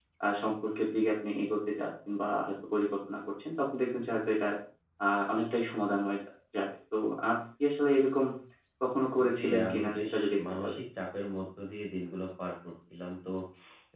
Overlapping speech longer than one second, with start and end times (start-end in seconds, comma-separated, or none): 9.3-10.8